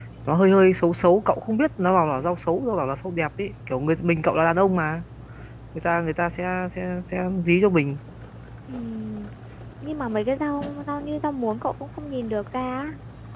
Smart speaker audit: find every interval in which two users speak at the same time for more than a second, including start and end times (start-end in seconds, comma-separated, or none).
none